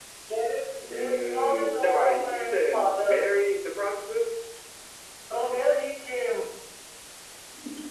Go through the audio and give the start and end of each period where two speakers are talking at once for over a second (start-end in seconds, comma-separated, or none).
0.9-3.2